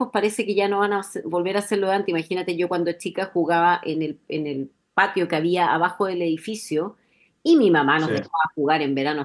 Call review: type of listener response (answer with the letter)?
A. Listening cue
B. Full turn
A